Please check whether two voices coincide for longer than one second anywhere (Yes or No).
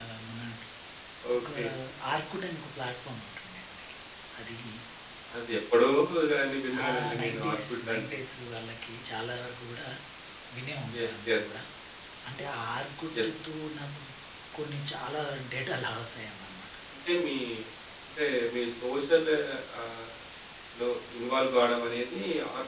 Yes